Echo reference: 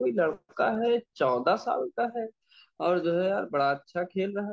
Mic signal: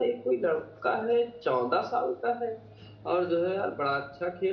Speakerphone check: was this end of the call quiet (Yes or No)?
Yes